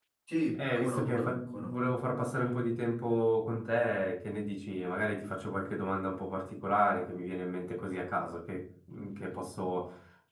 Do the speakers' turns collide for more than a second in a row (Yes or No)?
Yes